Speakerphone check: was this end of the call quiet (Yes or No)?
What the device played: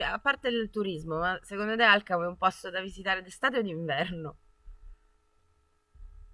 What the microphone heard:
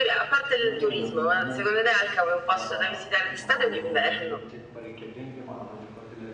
No